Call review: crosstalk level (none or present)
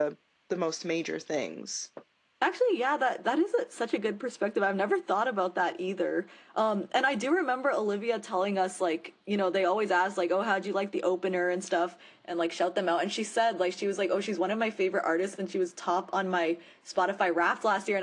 none